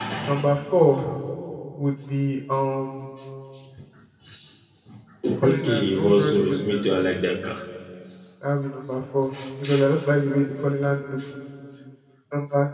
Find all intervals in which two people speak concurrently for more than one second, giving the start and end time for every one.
5.4-6.8

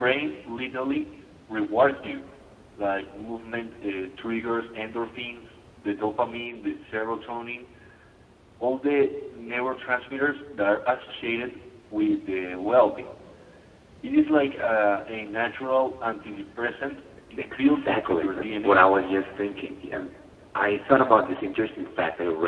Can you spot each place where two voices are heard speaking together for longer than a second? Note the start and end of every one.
17.5-18.8

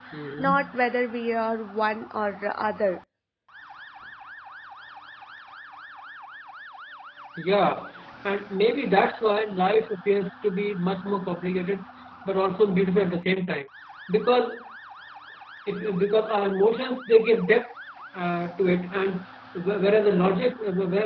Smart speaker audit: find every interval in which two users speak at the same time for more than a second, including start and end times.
none

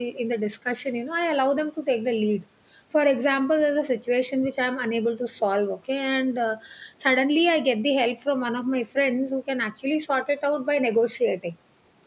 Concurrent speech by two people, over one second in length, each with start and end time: none

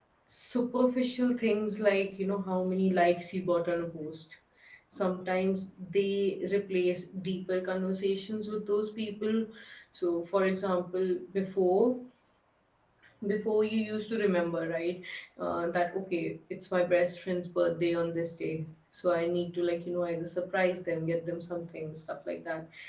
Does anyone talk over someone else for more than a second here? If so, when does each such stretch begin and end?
none

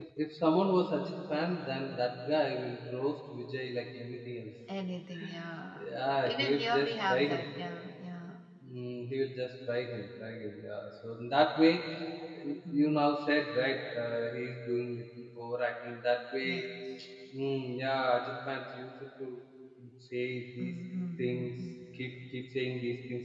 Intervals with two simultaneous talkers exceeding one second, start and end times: 6.2-7.4

